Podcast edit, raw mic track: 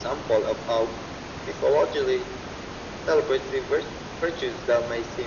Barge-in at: none

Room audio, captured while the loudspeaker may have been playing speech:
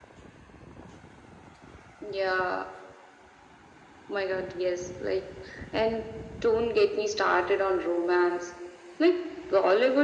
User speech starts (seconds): none

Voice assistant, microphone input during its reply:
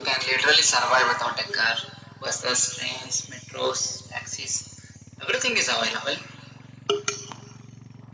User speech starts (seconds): none

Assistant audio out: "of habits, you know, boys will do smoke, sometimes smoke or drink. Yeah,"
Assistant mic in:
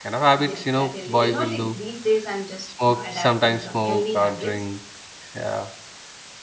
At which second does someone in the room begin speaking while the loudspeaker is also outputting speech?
0.4 s

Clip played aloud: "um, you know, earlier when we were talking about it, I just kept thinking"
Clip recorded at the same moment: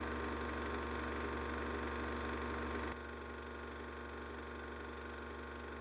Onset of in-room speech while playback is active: none

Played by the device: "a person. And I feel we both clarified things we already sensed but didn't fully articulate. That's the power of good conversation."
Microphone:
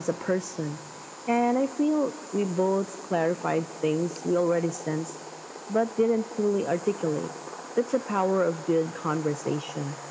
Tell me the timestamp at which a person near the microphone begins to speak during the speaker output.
none

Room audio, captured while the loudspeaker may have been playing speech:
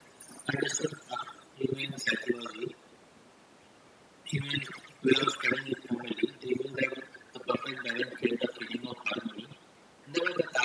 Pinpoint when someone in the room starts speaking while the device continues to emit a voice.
none

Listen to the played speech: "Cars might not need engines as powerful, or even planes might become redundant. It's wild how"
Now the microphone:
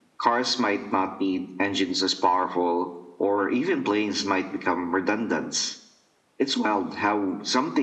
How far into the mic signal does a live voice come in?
none

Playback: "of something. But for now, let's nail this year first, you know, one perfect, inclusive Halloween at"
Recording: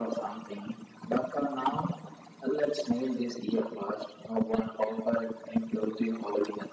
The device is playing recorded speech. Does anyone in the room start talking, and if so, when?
none

